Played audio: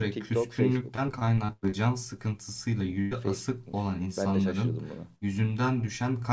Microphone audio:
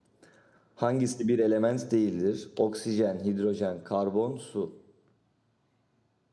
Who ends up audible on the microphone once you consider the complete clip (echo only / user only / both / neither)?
user only